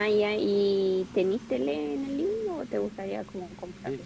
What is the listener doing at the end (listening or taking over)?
taking over